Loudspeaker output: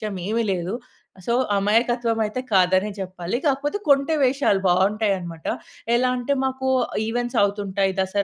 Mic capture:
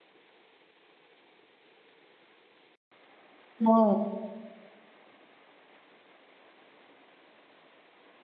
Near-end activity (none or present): present